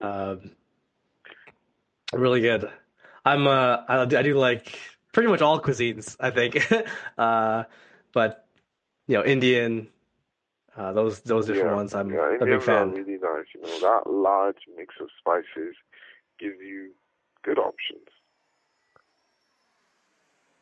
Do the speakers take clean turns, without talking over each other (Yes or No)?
No